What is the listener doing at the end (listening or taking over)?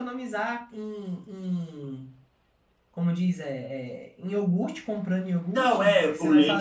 taking over